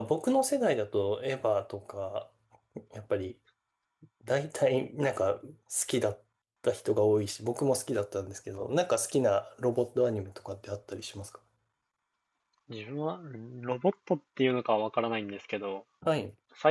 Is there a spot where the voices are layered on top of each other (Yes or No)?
No